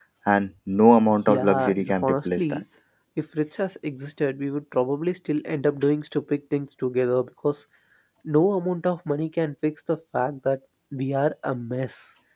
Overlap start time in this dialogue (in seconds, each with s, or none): 1.3 s